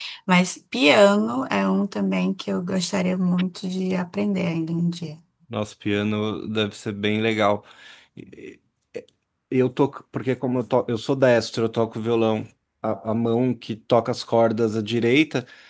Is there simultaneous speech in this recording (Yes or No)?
No